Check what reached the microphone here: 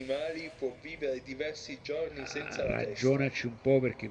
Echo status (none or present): present